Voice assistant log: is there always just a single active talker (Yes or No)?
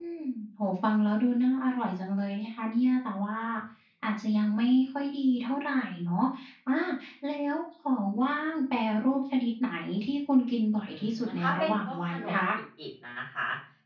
No